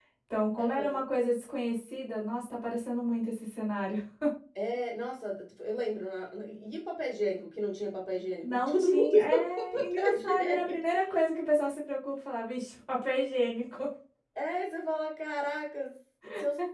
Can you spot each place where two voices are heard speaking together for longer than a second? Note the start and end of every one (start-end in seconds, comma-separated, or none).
8.4-10.8